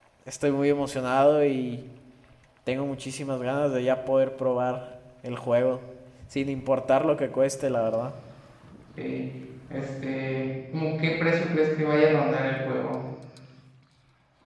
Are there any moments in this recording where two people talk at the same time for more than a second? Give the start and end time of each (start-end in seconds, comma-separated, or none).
none